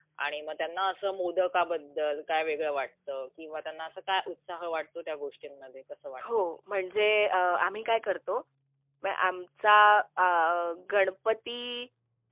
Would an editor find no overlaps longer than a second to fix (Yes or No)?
Yes